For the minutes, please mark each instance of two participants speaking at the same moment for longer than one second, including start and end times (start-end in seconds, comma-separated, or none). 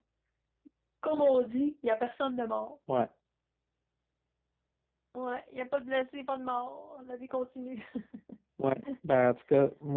none